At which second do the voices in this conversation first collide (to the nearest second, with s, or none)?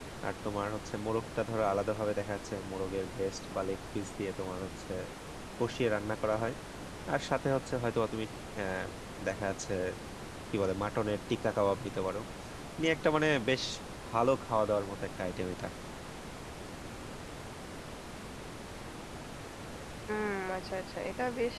none